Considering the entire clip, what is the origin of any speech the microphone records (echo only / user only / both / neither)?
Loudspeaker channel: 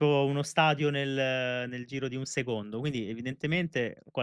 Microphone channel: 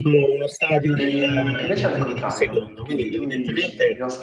both